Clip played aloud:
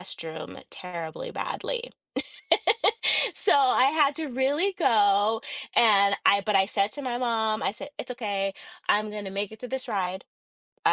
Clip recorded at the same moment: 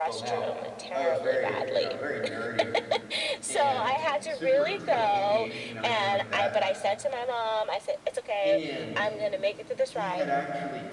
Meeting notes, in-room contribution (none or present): present